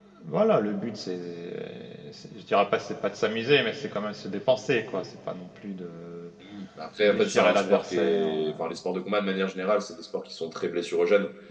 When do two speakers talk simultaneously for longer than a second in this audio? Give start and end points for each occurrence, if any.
7.0-8.5

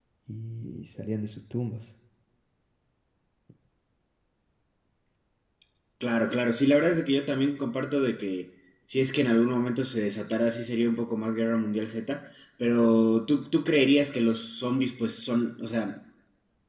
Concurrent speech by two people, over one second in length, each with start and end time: none

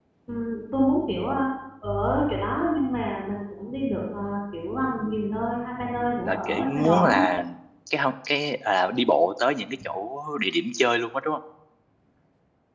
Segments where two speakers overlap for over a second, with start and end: 6.0-7.2

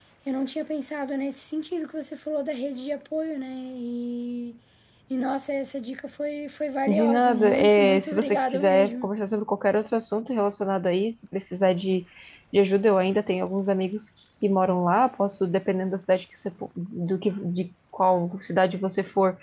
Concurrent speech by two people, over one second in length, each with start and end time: 6.9-9.1

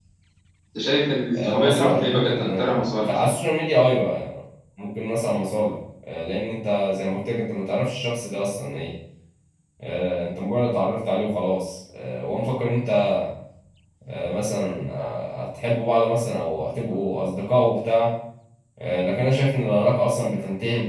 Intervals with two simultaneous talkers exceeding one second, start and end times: 1.3-3.3

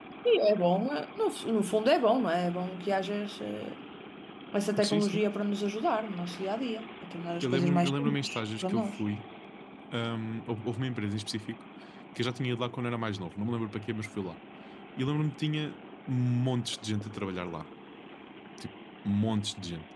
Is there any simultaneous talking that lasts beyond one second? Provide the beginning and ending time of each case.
7.4-9.0

